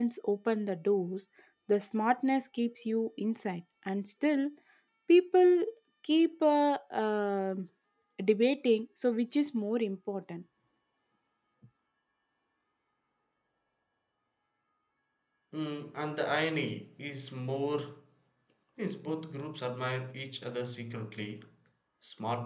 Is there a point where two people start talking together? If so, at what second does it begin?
none

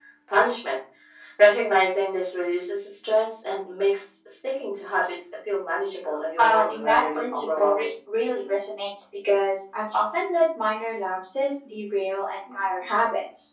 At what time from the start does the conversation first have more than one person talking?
6 s

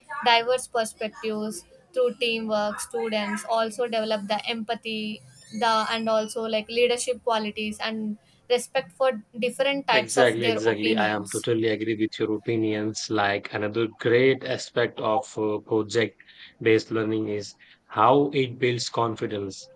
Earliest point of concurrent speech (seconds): 10 s

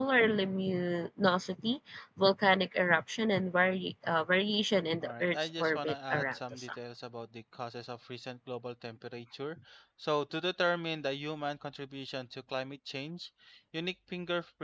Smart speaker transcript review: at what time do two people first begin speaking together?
5 s

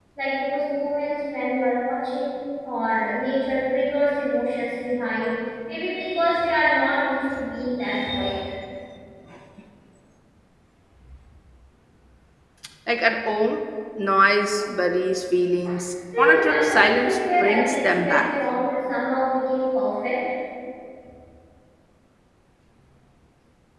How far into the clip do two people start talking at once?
16 s

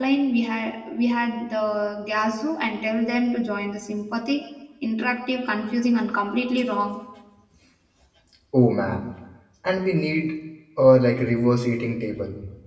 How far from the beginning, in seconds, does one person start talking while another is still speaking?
none

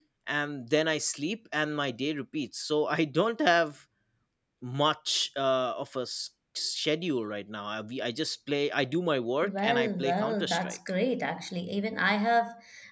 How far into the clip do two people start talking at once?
9 s

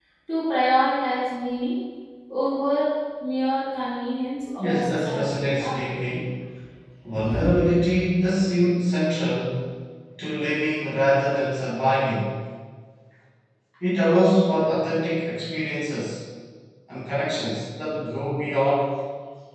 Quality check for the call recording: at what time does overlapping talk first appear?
5 s

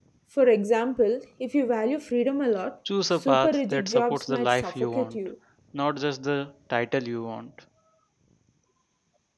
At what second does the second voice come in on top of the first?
3 s

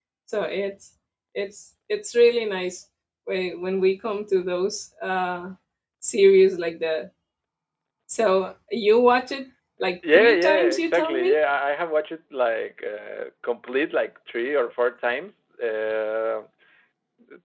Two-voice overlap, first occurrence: 10 s

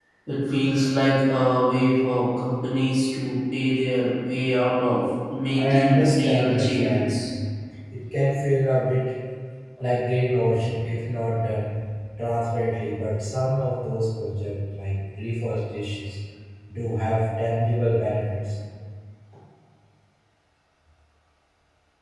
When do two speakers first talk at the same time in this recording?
6 s

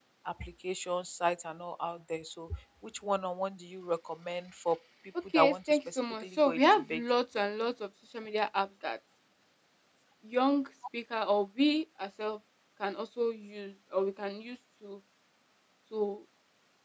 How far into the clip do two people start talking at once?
5 s

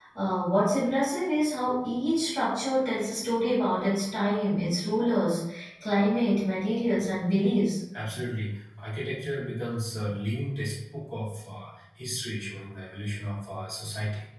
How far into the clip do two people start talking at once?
none

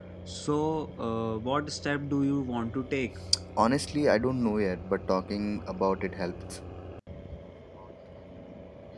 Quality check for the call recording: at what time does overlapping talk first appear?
none

